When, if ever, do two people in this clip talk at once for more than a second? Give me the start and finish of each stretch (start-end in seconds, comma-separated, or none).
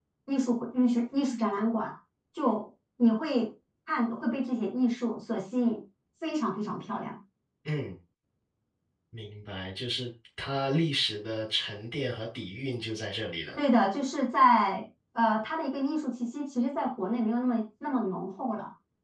none